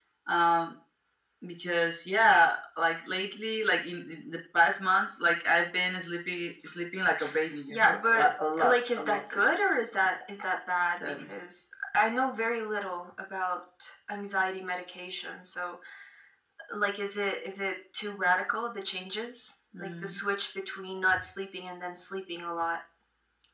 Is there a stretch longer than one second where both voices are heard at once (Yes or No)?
Yes